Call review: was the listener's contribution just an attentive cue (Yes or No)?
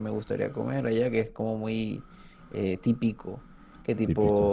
Yes